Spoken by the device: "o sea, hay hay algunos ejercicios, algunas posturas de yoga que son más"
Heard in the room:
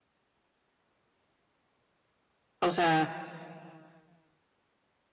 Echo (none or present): none